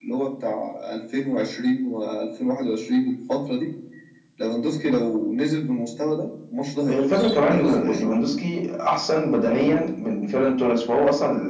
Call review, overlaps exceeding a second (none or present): present